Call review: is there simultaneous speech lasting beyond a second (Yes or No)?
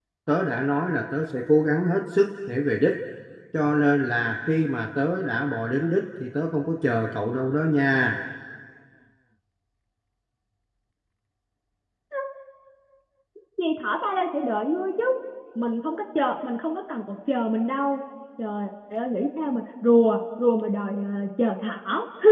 No